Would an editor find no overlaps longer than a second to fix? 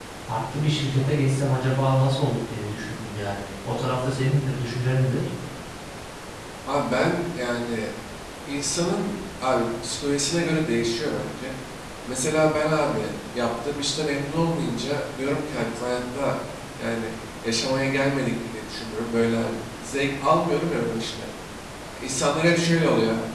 Yes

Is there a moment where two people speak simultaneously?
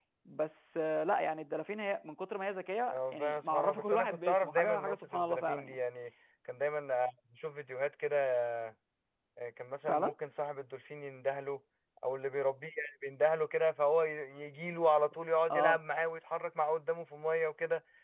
Yes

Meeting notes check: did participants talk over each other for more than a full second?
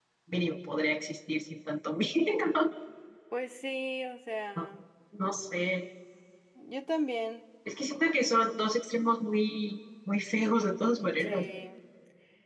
No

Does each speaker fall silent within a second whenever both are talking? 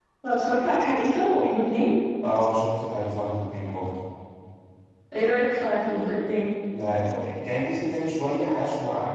Yes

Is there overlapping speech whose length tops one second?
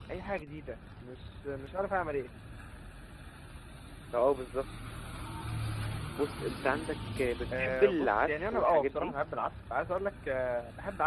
Yes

